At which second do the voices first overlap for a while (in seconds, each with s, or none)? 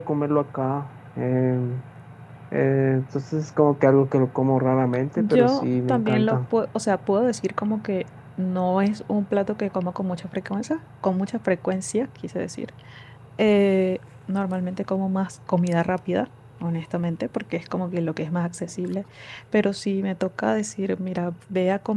5.2 s